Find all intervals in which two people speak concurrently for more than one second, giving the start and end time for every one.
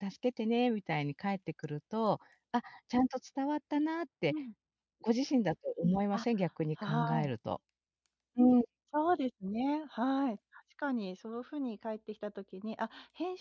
none

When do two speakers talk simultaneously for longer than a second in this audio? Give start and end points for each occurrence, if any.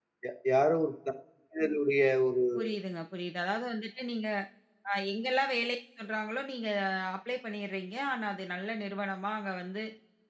none

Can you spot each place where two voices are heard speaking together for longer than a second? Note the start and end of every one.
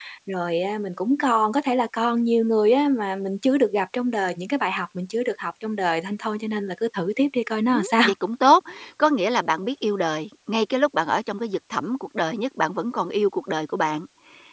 none

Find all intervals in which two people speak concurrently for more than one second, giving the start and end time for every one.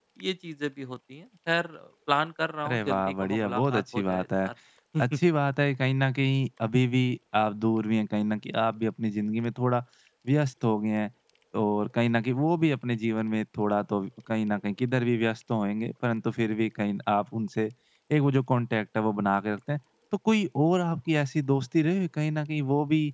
2.6-4.5

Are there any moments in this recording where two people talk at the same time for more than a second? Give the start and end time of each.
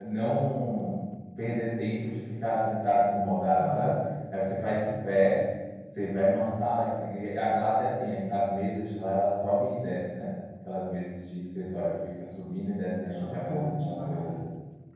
13.1-14.3

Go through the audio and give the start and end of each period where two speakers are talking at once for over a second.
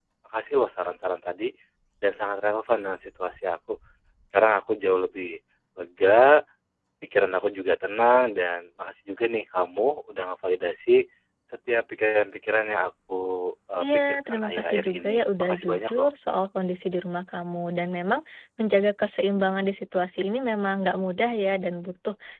13.8-16.1

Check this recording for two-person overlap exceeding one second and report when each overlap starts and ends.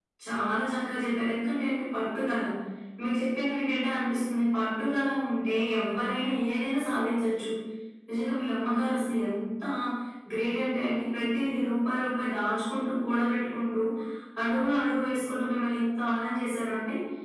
none

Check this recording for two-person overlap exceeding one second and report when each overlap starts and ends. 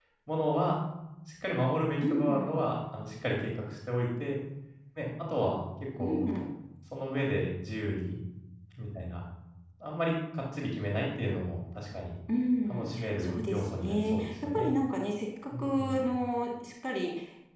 12.7-14.7

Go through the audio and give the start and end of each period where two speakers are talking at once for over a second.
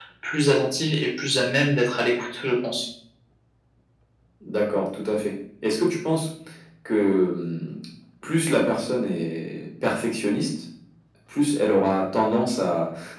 none

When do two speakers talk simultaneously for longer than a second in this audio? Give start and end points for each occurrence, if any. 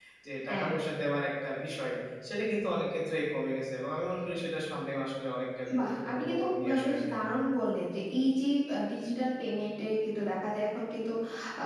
5.8-7.2

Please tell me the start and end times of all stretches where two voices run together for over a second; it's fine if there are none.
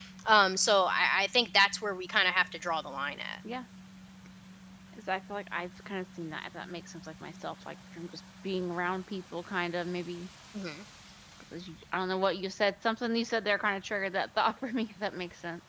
none

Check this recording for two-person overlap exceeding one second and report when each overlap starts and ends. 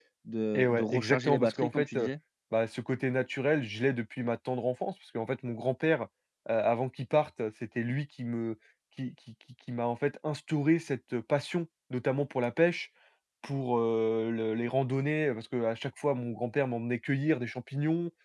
0.6-2.1

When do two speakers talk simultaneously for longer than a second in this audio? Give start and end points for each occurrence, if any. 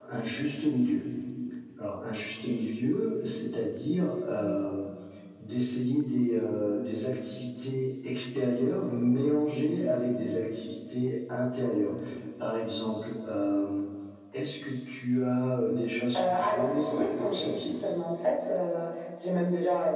16.1-17.7

